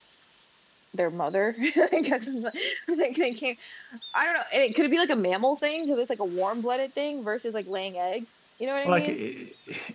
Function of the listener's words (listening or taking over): taking over